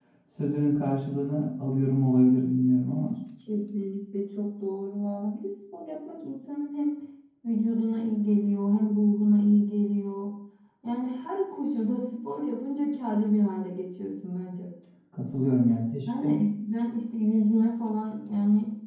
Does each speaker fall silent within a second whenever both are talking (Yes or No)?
Yes